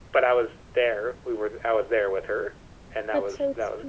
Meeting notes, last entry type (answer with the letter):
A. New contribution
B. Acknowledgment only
A